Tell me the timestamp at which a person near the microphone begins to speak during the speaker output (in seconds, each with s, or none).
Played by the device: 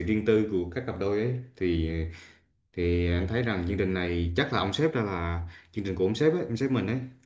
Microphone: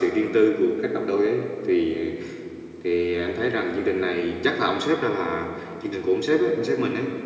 none